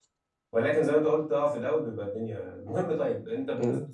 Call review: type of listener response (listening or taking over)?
listening